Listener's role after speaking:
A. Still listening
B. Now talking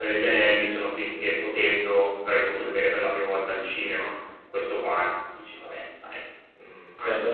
B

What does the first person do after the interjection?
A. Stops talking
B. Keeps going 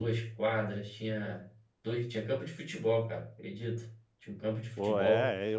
A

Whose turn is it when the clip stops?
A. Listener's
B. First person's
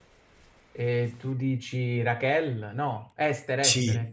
A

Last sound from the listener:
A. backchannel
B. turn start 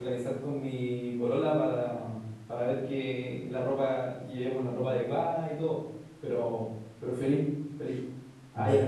A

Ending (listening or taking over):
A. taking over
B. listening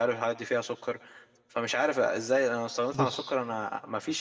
B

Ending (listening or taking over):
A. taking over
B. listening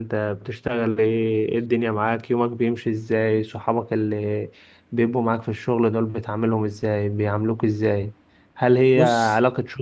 B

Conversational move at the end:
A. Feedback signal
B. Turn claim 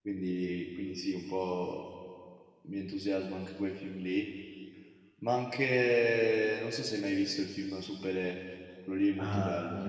B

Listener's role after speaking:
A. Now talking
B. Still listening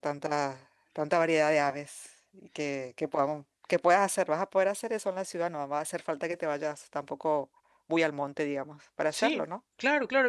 A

